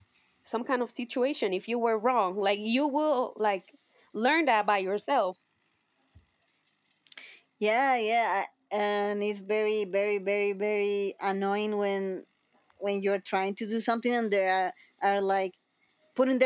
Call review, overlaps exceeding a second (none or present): none